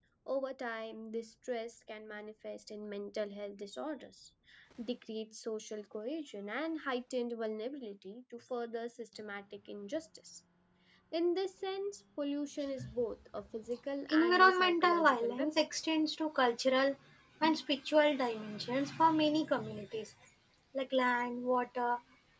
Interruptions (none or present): present